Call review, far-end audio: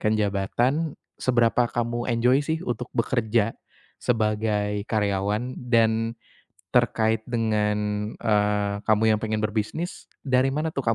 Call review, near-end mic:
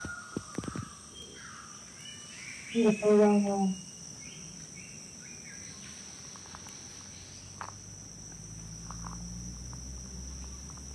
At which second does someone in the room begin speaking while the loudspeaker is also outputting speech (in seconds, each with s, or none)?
2.8 s